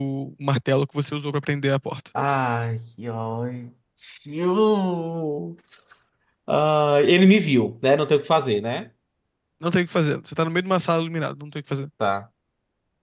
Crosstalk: none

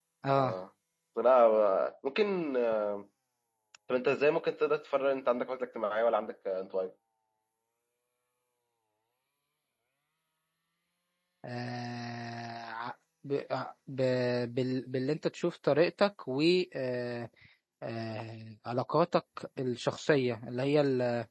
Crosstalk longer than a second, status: none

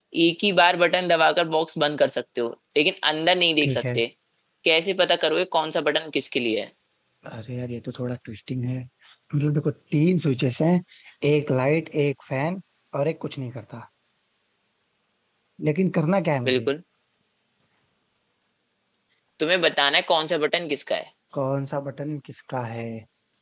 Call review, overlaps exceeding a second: none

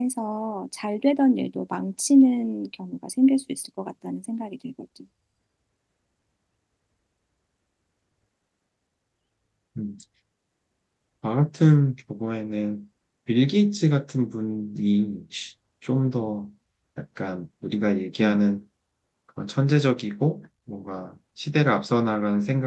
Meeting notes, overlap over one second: none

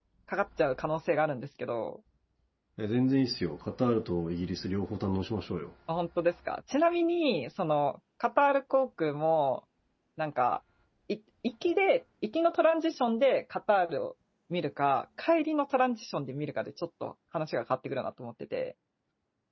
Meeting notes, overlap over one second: none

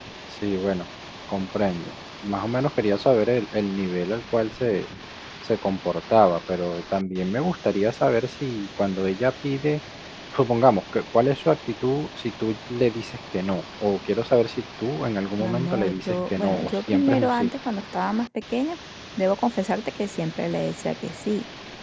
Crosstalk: present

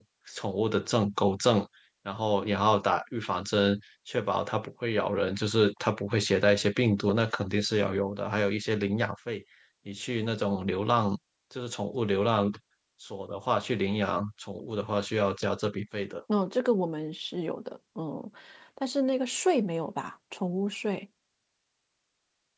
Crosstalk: none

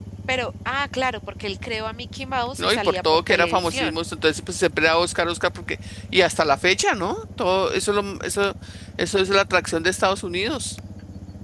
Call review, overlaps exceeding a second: present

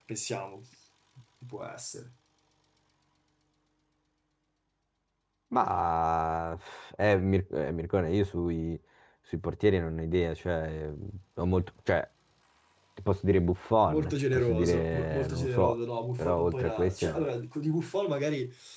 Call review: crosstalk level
present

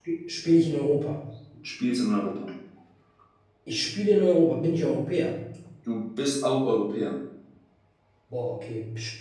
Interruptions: none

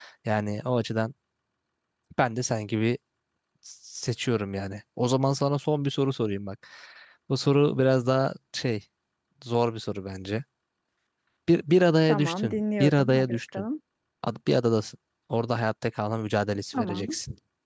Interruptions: present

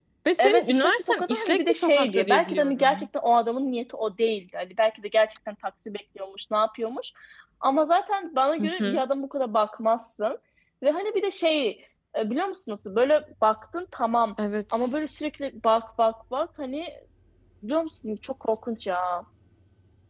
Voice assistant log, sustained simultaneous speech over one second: present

